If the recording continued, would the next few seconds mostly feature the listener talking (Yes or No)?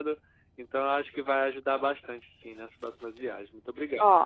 Yes